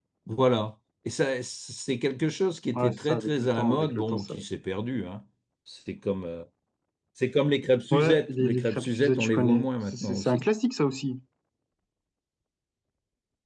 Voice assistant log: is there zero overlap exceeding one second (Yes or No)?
No